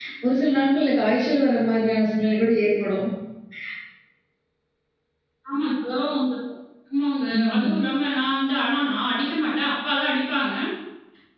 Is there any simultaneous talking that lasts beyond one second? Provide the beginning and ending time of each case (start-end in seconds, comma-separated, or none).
none